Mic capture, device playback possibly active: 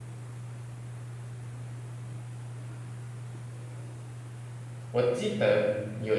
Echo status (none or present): none